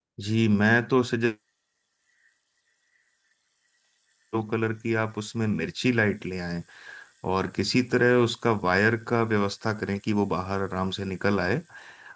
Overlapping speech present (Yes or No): No